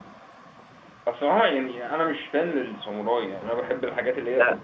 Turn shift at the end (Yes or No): Yes